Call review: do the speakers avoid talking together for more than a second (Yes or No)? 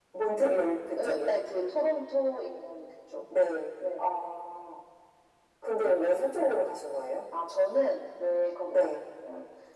Yes